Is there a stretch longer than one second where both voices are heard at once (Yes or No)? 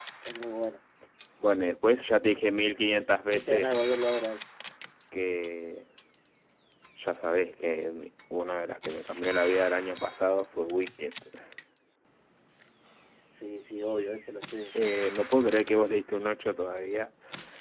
No